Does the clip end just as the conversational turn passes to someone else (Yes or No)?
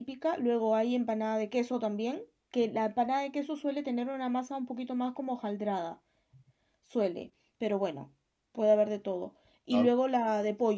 No